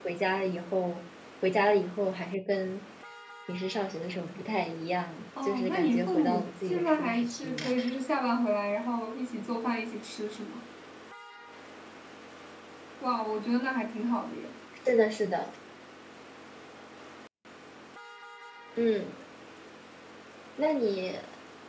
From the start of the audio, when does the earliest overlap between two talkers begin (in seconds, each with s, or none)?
5.4 s